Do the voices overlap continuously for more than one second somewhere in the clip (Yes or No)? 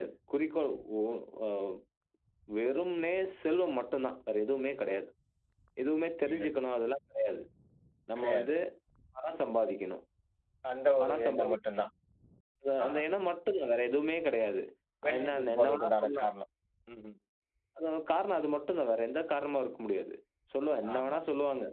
Yes